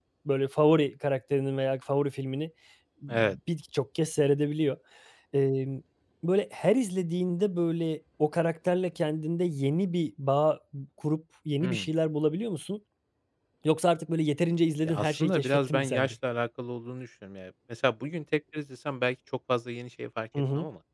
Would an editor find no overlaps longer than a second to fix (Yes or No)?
No